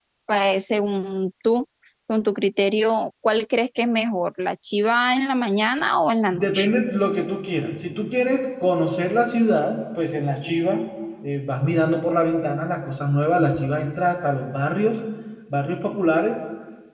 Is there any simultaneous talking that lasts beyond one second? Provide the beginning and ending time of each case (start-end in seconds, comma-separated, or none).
none